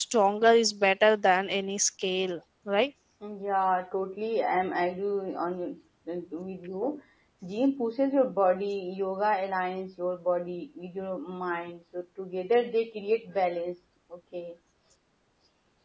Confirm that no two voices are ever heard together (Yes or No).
Yes